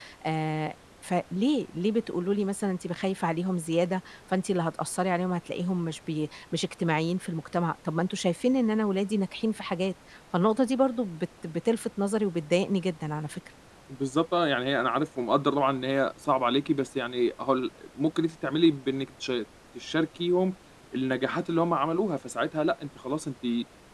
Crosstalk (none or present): none